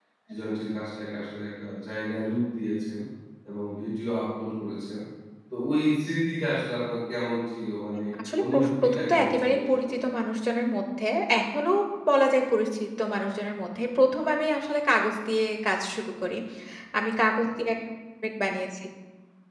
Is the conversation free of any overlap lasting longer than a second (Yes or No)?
No